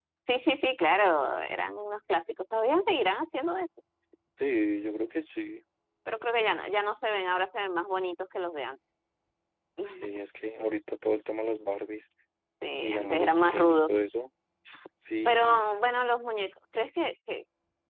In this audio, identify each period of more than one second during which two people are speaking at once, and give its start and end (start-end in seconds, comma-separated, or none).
12.8-14.0